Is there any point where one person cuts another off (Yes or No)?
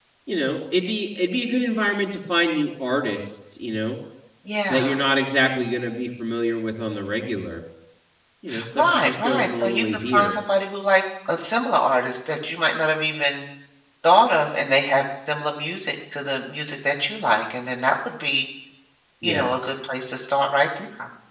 Yes